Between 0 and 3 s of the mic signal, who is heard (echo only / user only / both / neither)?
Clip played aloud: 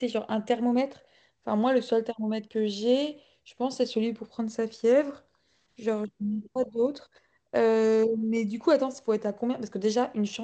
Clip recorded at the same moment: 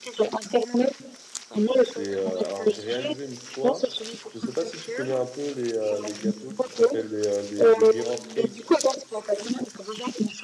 both